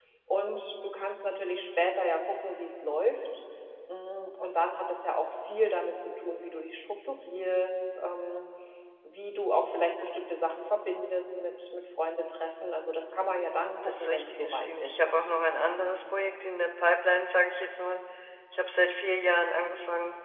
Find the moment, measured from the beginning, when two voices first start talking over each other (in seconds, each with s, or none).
13.8 s